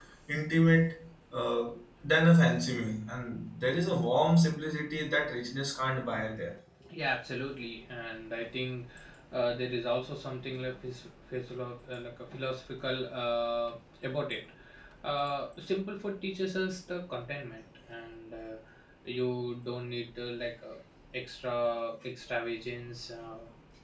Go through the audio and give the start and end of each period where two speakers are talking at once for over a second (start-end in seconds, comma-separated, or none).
none